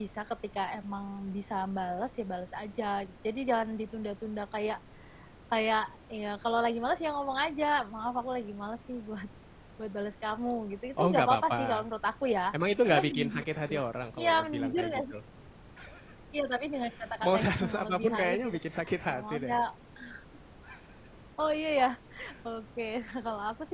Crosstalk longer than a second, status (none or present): present